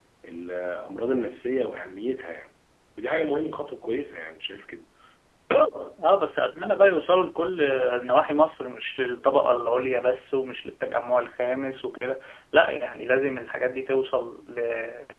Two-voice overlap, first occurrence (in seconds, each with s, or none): none